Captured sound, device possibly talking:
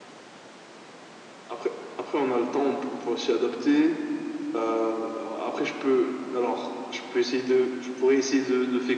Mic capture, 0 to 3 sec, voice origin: echo only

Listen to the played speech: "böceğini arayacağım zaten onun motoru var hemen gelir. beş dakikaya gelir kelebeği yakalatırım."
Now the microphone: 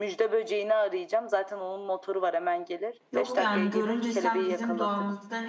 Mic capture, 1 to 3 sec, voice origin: echo only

